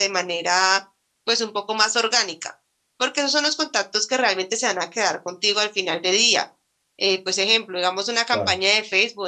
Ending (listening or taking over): listening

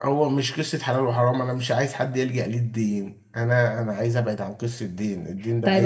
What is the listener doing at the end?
taking over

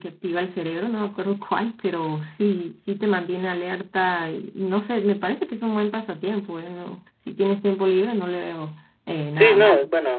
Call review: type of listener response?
taking over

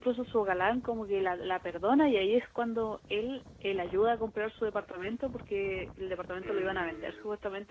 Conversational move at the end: listening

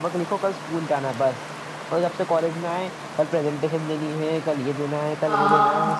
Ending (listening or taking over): taking over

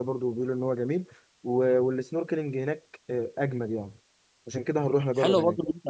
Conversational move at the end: taking over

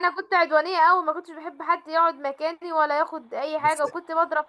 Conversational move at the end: listening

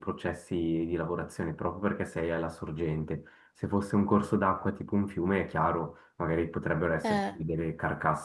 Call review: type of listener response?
listening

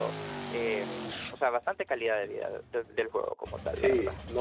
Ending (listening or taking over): taking over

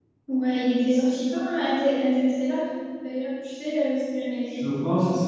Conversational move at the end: taking over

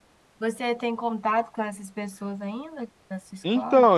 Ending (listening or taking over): taking over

